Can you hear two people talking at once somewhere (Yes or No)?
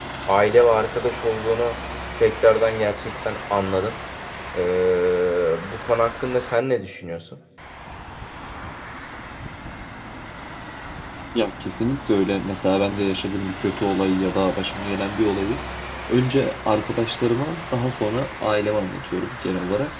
No